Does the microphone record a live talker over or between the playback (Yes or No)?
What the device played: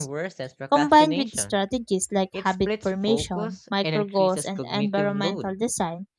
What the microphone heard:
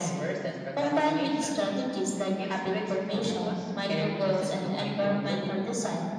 Yes